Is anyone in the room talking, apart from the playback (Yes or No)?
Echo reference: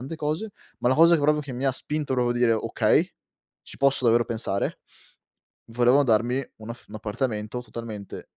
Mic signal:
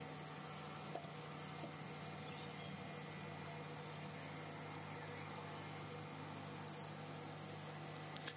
No